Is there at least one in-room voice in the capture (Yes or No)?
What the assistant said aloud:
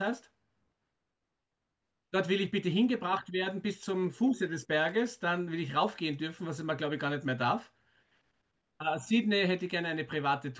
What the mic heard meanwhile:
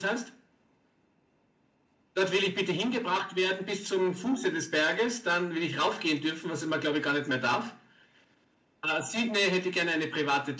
No